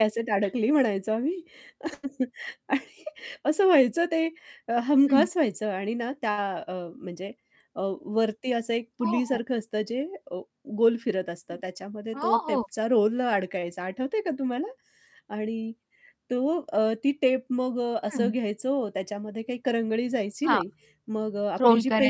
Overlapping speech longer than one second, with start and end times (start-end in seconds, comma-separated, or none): none